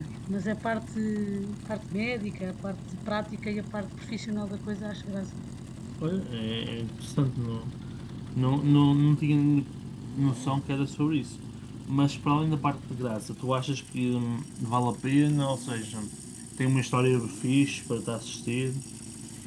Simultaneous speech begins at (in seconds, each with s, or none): none